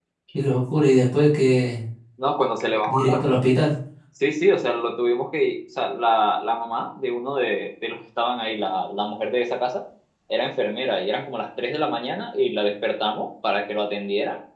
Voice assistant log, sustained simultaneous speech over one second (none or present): none